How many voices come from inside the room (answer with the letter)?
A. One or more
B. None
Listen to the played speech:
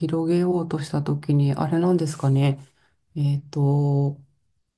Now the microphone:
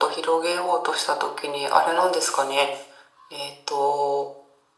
B